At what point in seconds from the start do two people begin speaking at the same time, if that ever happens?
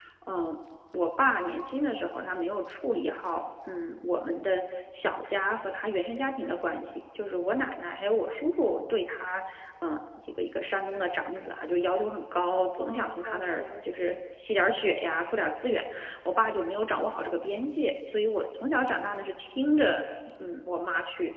13 s

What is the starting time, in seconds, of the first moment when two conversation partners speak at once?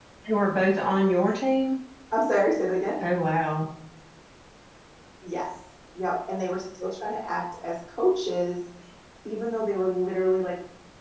none

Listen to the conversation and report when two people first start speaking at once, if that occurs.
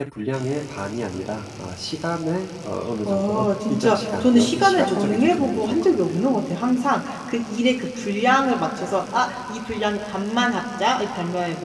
3 s

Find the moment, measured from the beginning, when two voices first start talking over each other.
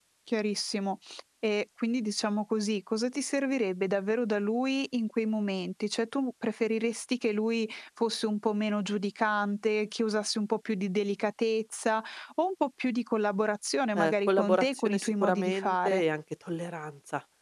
14 s

